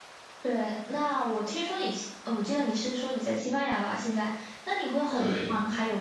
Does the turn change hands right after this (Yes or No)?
No